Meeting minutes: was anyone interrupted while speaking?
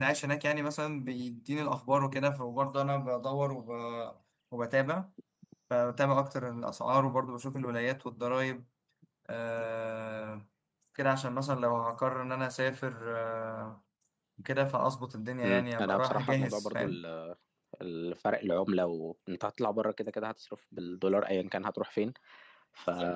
Yes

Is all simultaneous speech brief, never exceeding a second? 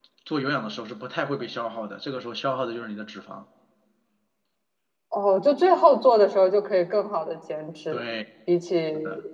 Yes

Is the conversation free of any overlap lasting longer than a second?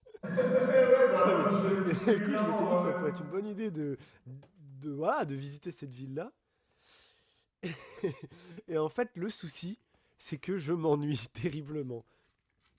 No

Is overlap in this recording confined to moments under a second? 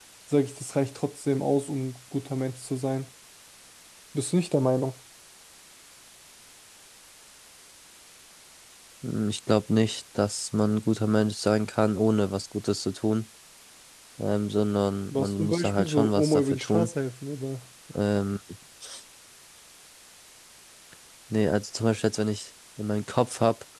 No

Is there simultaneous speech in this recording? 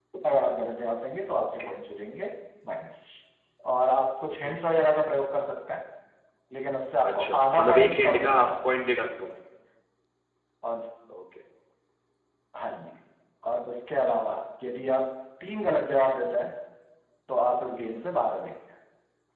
Yes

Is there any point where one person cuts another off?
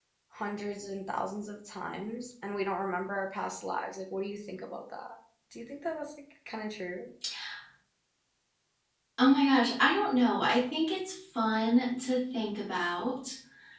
No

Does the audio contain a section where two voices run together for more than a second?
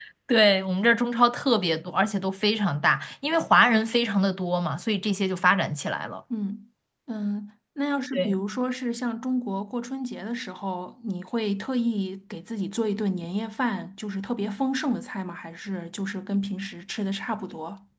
No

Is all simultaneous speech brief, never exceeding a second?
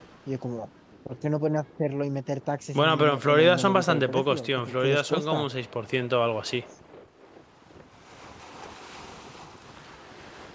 No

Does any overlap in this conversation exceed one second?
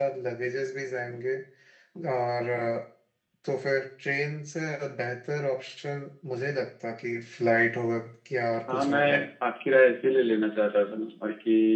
No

